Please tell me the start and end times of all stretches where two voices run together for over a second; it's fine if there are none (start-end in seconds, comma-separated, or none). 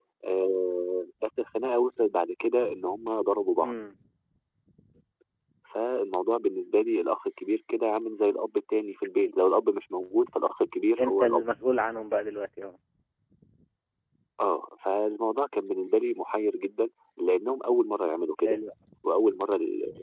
none